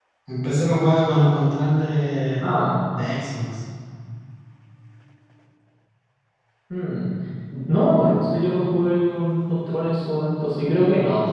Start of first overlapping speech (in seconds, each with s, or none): none